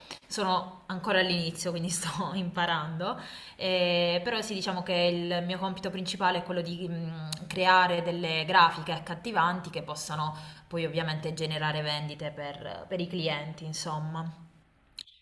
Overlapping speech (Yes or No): No